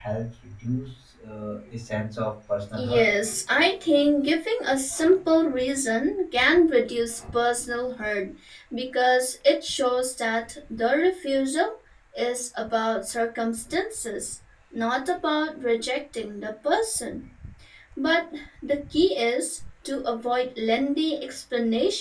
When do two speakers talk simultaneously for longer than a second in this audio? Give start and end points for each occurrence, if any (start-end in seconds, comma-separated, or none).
none